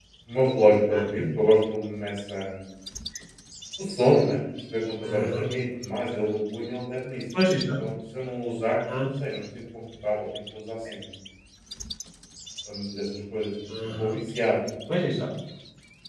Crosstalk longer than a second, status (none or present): none